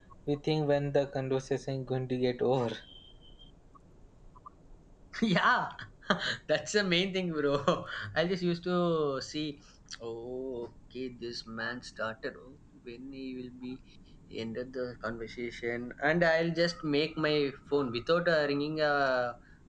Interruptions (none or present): none